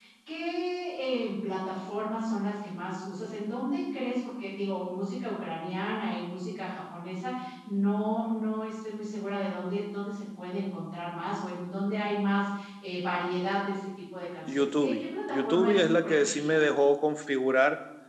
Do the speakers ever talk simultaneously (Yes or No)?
Yes